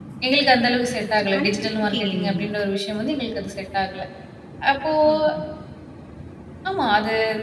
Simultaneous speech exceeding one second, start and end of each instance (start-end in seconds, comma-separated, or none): 1.2-2.4